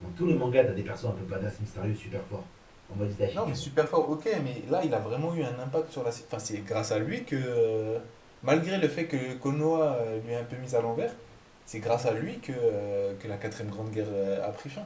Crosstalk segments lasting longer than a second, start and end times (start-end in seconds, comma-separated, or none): none